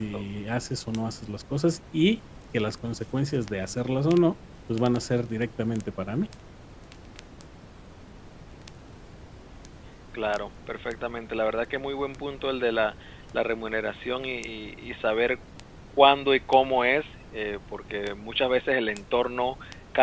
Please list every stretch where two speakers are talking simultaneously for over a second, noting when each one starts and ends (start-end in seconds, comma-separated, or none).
none